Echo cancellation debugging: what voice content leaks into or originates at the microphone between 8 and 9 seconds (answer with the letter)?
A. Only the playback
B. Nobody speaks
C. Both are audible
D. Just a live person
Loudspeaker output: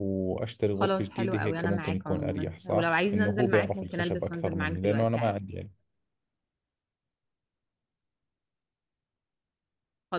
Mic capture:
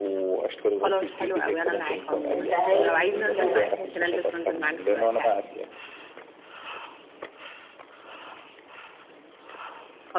B